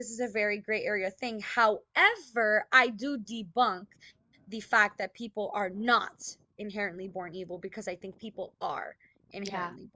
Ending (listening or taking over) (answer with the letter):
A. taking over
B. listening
A